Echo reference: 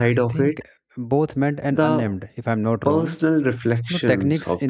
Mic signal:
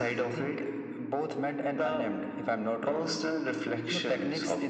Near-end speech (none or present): none